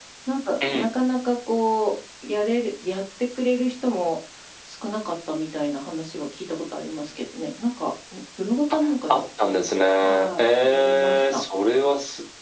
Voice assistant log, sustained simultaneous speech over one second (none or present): present